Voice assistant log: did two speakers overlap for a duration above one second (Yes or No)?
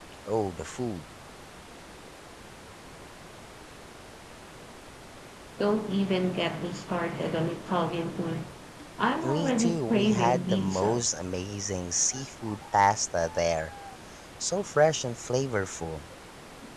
Yes